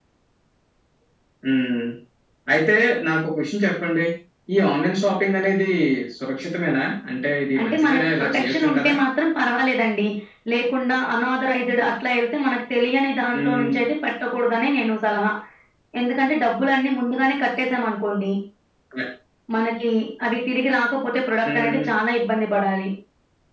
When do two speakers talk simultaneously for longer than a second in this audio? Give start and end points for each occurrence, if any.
7.6-8.9

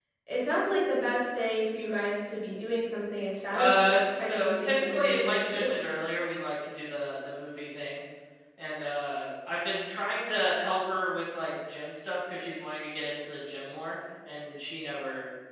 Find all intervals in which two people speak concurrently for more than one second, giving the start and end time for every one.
3.5-5.7

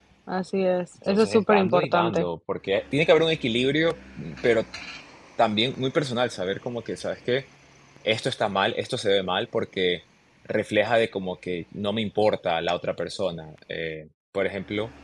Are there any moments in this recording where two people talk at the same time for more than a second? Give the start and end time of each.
1.1-2.3

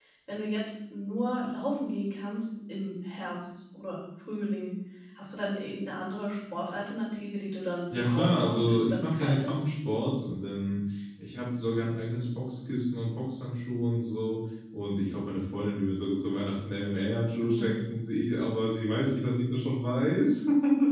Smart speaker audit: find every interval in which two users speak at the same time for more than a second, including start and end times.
7.9-9.7

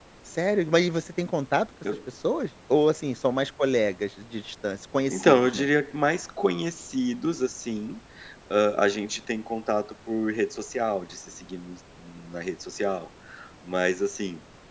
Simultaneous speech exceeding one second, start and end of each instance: none

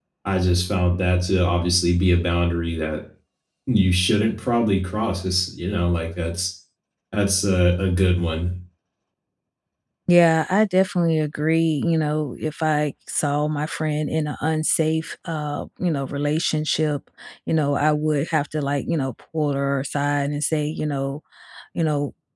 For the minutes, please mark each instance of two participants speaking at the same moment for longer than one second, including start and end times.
none

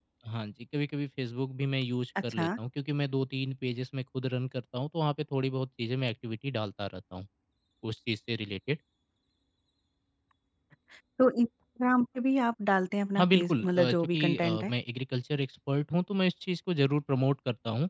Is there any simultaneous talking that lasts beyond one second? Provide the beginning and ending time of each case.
13.2-14.7

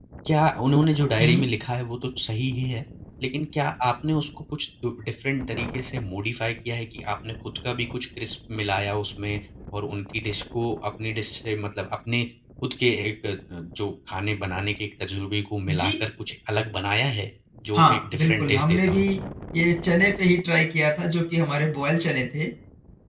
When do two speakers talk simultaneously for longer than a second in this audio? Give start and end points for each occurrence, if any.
17.8-19.1

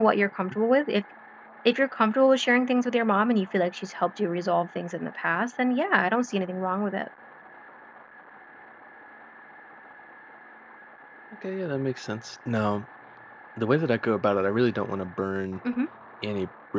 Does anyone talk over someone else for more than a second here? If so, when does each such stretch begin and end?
none

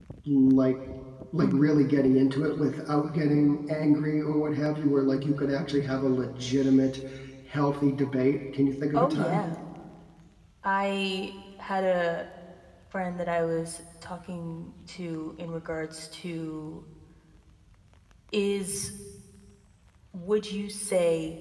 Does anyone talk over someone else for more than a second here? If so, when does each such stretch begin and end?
none

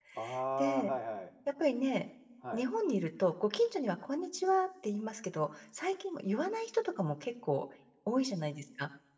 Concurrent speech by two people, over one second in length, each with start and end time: none

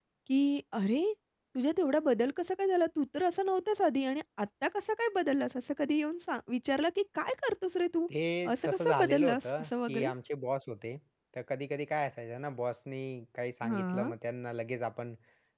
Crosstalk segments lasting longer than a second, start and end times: 8.7-10.1

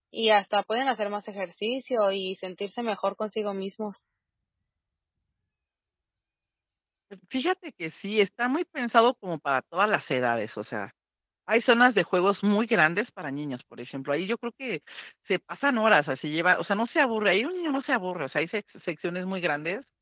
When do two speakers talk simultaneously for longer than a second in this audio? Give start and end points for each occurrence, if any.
none

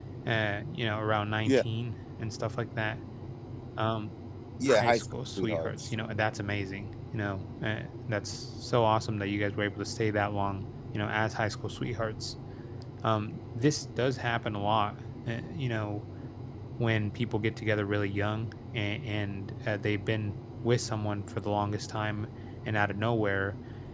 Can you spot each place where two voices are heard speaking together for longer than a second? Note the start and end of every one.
4.7-5.9

